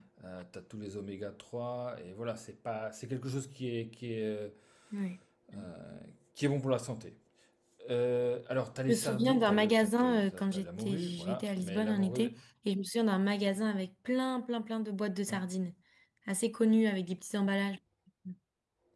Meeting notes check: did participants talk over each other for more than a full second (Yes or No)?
Yes